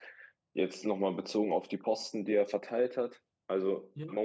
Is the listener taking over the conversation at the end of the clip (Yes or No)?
No